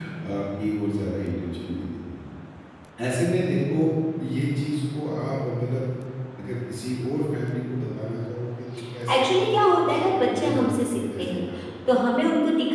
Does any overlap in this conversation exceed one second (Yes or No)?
Yes